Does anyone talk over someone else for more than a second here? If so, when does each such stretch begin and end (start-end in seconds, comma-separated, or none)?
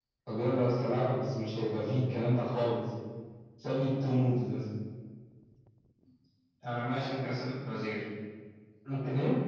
none